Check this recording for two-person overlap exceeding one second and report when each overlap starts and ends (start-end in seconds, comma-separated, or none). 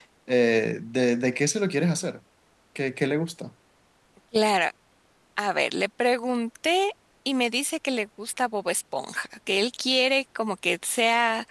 none